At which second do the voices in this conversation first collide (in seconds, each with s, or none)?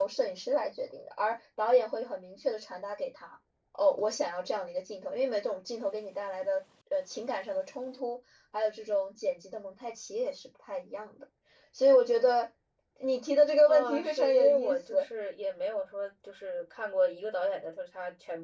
13.7 s